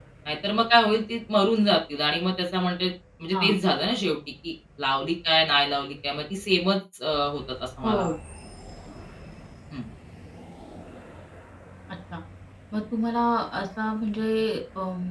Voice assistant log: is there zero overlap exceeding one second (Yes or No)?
Yes